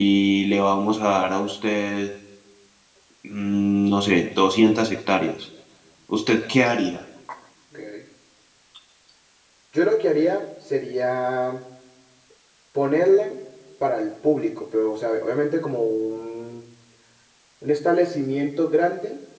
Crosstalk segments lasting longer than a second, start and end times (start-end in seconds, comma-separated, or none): none